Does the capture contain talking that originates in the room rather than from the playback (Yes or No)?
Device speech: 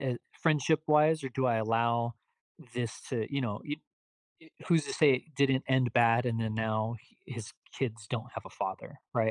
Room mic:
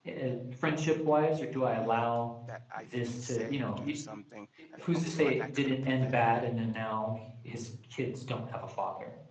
Yes